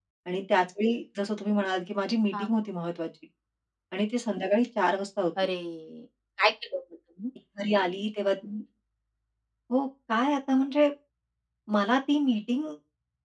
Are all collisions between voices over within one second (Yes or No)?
Yes